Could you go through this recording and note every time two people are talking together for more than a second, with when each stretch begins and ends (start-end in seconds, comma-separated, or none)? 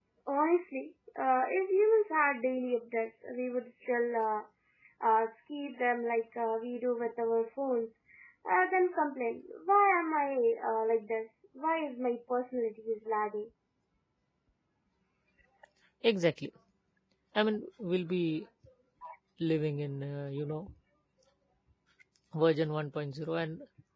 none